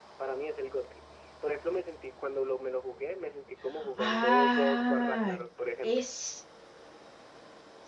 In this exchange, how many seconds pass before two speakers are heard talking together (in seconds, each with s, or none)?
4.0 s